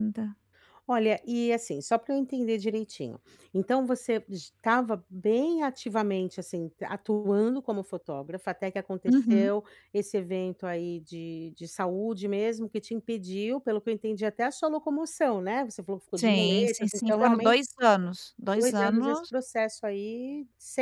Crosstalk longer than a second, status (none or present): present